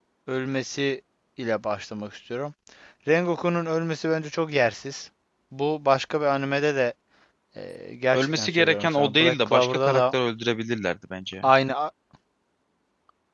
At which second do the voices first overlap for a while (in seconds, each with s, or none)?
8.1 s